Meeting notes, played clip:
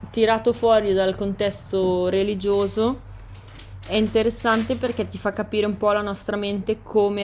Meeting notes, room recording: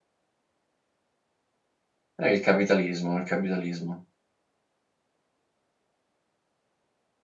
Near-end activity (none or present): present